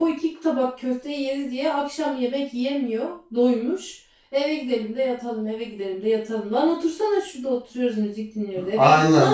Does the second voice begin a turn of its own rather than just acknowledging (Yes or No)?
Yes